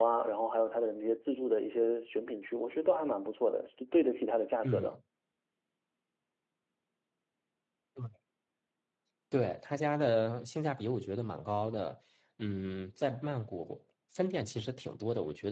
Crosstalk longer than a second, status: none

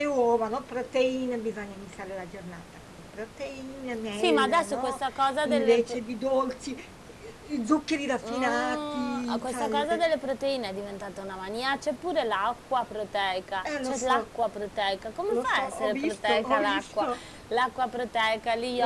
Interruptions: present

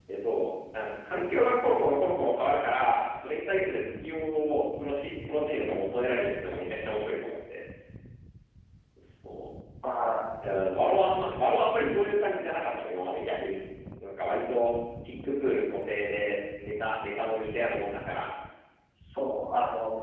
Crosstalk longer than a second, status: none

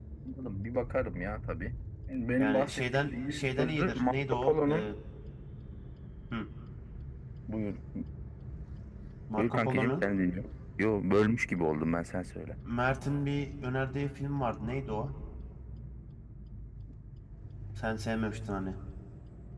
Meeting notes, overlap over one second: present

